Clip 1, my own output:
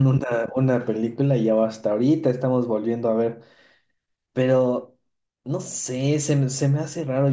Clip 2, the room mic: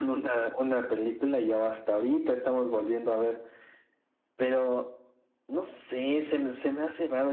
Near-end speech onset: none

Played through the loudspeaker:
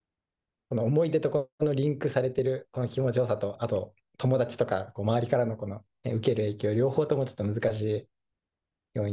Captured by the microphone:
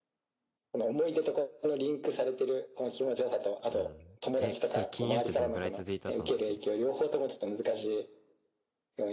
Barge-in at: 3.7 s

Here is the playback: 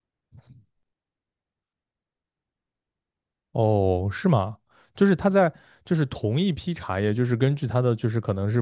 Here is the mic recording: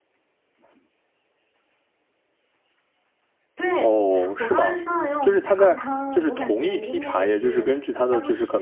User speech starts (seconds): 3.5 s

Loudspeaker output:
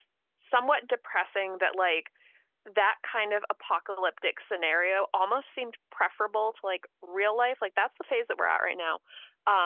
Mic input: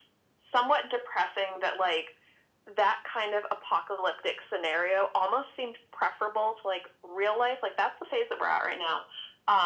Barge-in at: none

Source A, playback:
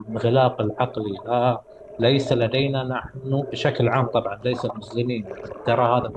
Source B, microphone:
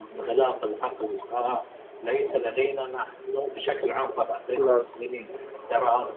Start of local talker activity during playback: 4.5 s

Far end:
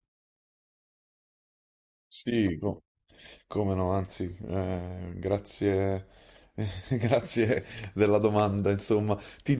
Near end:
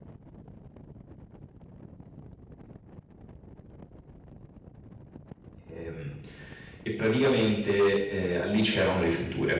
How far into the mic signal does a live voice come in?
5.7 s

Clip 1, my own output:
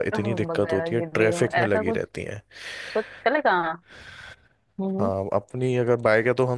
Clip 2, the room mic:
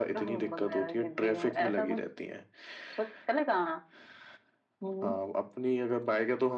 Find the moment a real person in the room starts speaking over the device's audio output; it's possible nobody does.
none

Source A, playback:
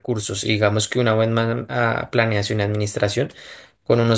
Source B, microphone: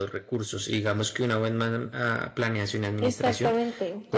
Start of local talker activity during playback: 3.0 s

